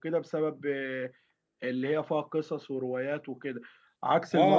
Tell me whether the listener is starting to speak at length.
Yes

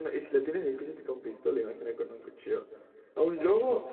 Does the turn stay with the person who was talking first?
Yes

